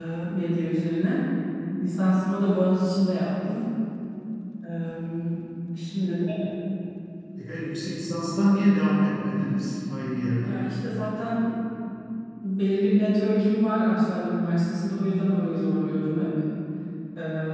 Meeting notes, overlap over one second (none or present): none